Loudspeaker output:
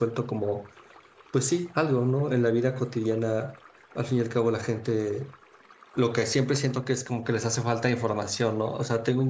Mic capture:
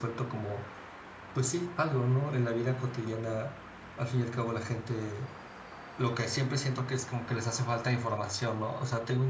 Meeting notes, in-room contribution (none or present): none